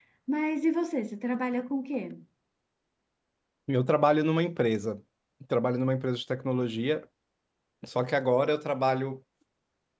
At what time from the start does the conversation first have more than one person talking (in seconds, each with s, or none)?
none